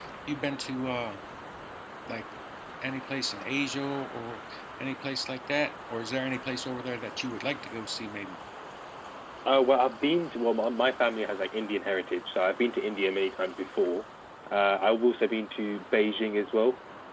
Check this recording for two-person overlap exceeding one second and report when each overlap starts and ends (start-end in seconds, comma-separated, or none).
none